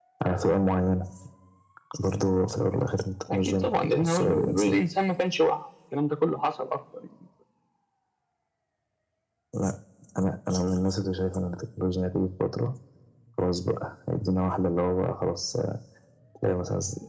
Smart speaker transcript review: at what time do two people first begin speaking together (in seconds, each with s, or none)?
3.3 s